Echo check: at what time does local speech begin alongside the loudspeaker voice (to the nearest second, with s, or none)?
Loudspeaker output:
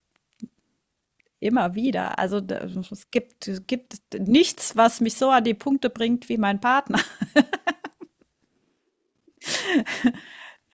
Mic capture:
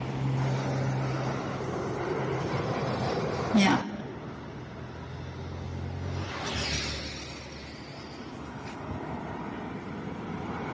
4 s